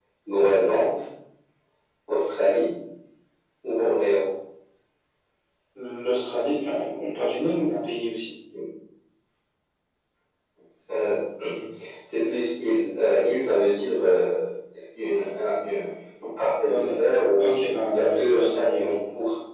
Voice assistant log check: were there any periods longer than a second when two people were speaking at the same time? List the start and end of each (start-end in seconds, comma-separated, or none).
17.4-18.9